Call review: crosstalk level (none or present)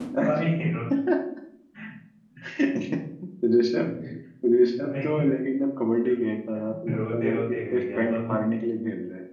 present